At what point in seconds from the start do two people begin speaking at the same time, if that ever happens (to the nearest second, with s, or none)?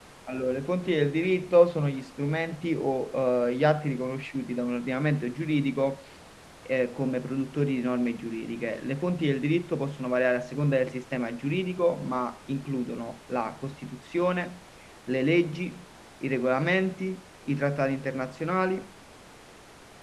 none